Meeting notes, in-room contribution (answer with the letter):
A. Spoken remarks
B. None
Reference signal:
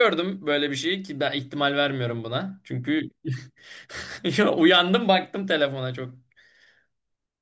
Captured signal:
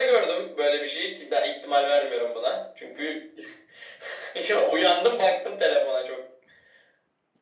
B